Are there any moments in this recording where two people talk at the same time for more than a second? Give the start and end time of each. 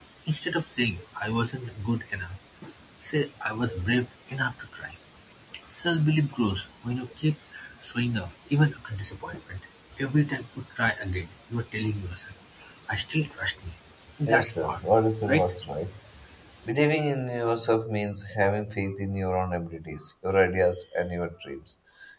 14.3-15.5

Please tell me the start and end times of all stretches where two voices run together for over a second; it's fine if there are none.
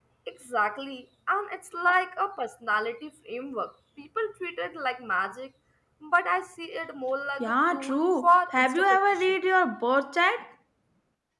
7.4-9.3

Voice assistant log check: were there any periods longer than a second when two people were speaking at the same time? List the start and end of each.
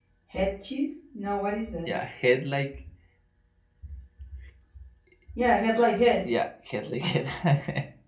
none

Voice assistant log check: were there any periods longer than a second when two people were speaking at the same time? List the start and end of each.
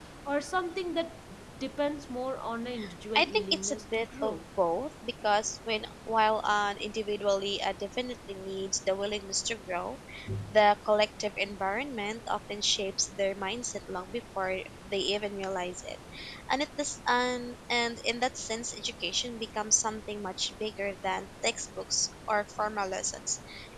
3.1-4.4

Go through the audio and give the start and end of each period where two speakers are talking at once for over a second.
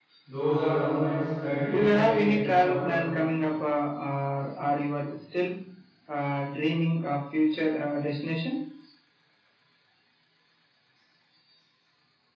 1.7-2.9

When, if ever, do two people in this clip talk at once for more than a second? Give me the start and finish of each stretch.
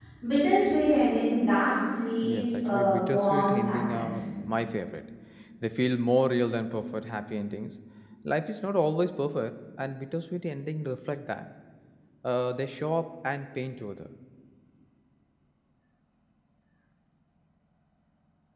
2.2-4.2

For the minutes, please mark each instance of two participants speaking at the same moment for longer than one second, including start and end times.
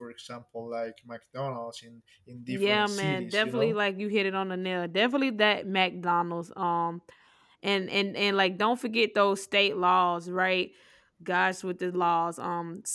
2.5-3.8

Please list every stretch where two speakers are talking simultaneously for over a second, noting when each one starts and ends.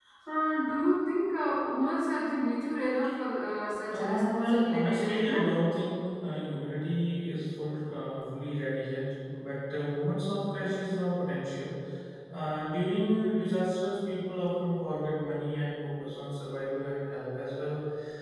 3.9-5.4

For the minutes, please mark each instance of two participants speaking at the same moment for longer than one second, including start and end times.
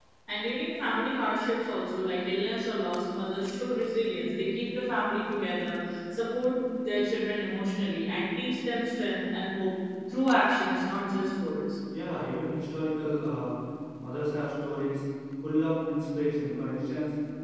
none

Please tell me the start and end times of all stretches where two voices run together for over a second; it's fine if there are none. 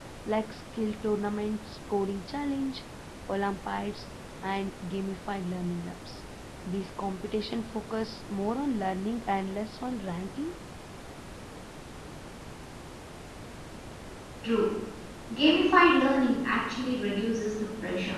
none

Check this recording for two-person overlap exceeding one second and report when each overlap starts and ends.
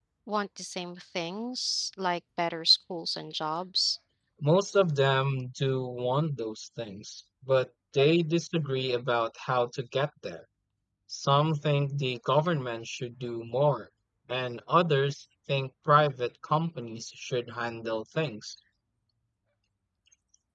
none

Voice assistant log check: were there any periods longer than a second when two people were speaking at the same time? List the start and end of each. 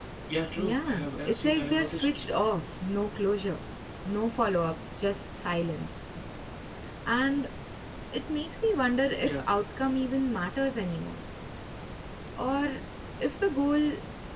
0.6-2.2

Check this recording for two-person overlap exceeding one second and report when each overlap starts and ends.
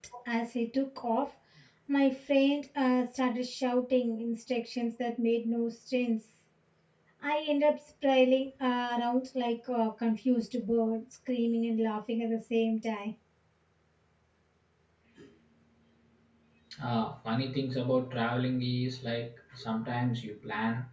none

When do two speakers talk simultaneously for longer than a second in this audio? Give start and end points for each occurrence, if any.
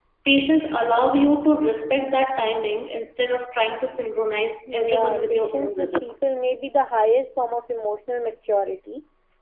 4.7-6.1

